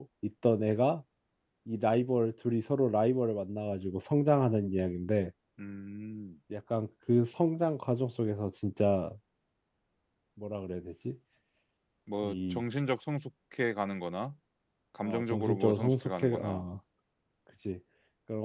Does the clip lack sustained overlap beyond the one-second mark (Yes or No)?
No